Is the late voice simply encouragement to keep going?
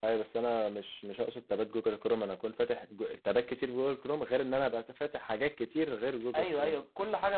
No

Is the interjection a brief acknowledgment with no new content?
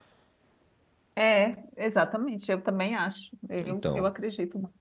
Yes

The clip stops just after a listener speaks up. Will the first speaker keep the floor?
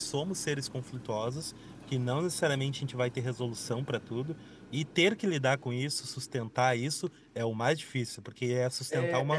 No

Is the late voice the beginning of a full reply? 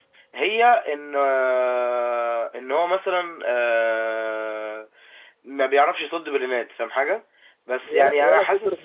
Yes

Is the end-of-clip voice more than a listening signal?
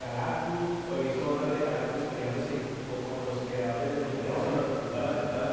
Yes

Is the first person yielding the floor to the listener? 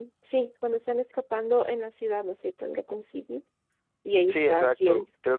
Yes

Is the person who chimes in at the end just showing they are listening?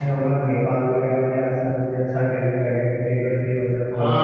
No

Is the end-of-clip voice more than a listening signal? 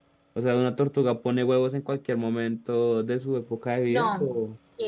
Yes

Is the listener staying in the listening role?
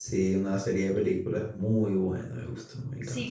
No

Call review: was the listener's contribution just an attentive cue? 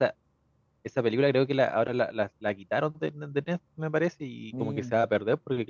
Yes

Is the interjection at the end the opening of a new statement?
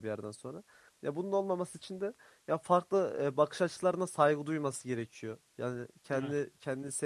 No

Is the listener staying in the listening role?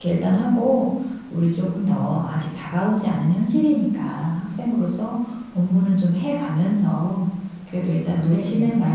Yes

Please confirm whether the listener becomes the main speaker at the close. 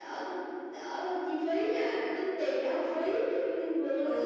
Yes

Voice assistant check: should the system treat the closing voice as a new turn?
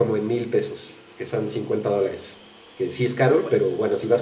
No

